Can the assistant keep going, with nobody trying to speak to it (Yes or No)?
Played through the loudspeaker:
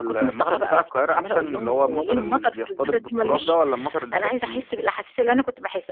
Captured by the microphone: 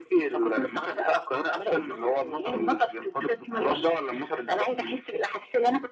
No